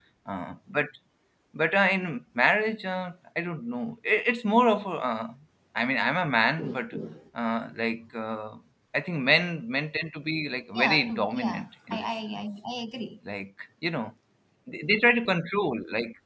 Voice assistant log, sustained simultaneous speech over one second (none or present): present